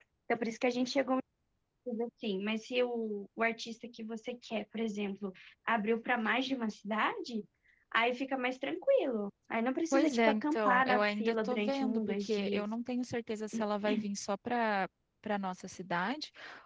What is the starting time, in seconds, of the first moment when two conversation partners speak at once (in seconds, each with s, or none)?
9.9 s